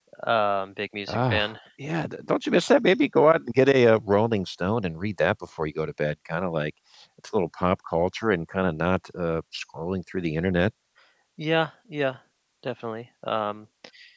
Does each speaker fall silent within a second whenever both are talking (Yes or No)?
Yes